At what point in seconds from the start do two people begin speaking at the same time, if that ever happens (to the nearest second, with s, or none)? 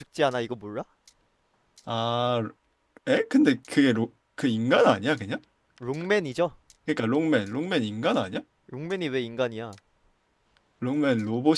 none